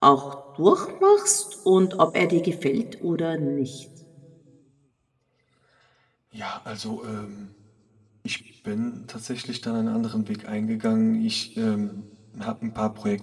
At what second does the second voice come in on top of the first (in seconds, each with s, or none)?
none